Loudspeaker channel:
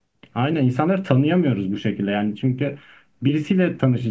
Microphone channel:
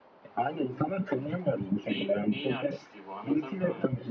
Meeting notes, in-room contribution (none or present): present